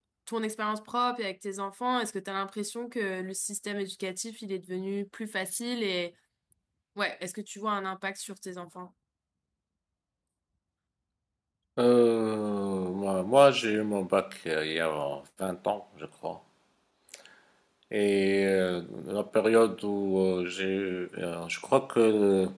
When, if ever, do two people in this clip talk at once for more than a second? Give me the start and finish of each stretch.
none

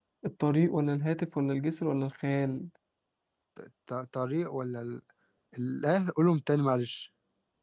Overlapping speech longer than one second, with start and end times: none

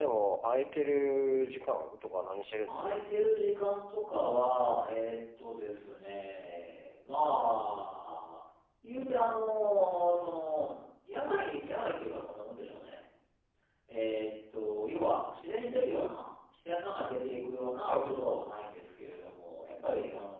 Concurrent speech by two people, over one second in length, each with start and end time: none

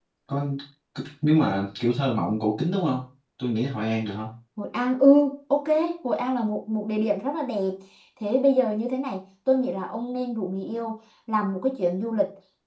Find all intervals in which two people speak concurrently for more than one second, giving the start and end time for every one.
none

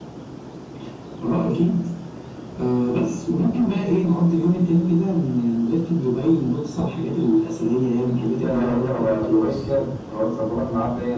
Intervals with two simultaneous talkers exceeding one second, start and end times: 8.4-9.7

